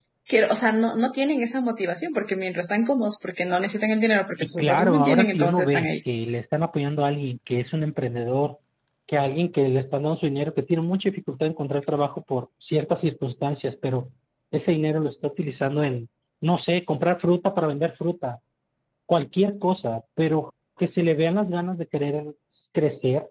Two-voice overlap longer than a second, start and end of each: 4.3-5.9

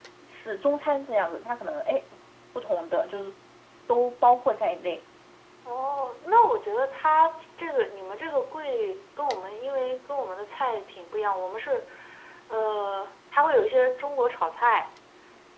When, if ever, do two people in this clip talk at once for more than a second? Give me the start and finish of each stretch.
none

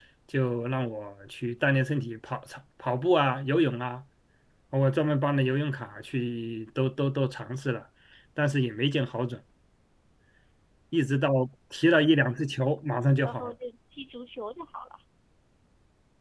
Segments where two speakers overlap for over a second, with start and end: none

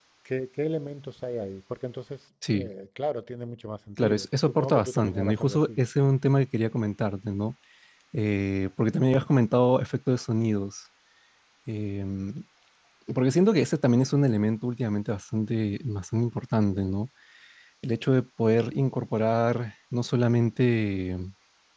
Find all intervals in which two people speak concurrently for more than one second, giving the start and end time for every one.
4.0-5.8

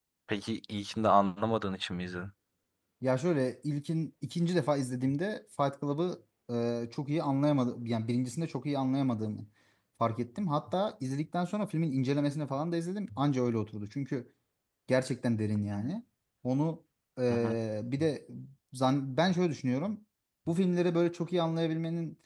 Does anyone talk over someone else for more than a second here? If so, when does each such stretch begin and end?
none

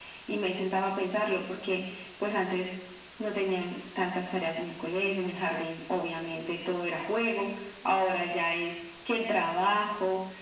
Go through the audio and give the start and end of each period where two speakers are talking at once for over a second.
none

